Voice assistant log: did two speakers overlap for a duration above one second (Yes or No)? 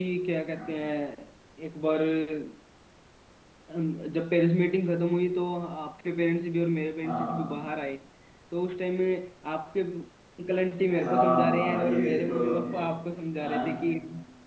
Yes